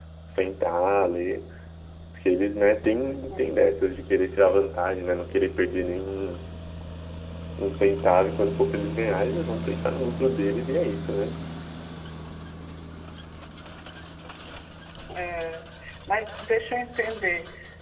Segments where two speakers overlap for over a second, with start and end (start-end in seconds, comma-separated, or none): none